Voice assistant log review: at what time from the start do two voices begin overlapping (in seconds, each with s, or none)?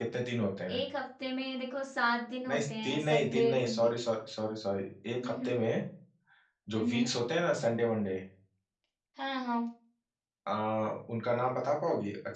2.5 s